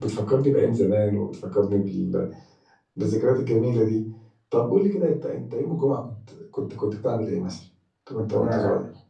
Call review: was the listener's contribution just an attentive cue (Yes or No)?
No